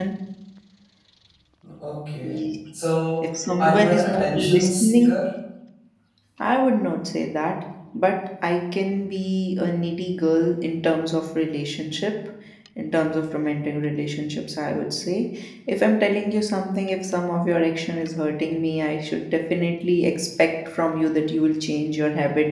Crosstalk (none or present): present